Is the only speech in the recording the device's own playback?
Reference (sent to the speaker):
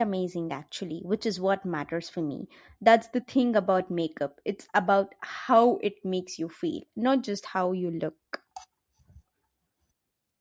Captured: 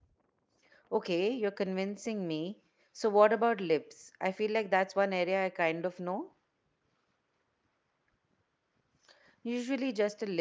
No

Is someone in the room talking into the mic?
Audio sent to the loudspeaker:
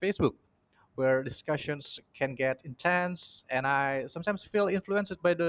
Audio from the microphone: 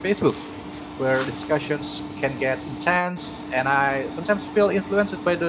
No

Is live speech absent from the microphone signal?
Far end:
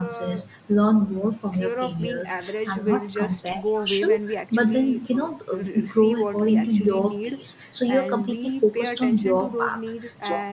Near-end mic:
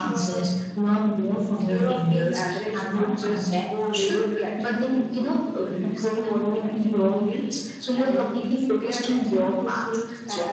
Yes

